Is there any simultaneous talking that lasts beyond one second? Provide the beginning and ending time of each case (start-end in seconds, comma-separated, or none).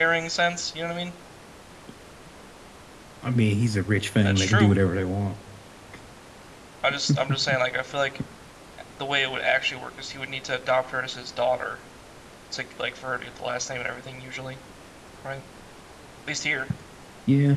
none